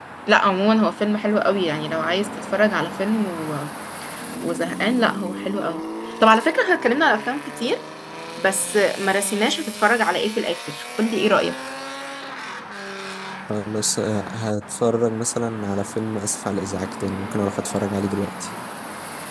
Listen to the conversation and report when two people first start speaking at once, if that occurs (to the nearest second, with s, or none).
none